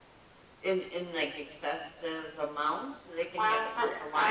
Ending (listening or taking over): taking over